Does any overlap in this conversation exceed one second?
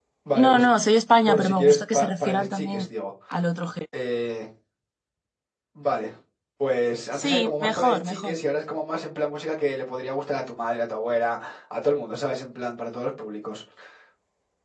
Yes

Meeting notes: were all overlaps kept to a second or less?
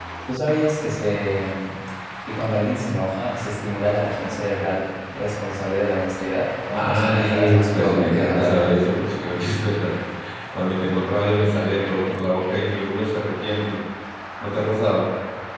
No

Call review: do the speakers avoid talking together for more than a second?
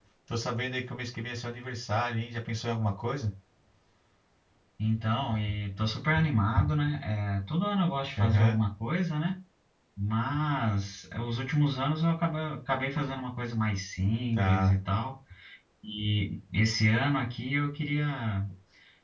Yes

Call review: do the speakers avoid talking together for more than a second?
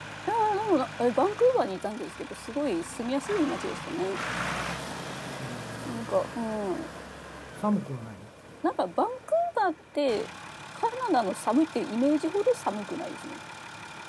Yes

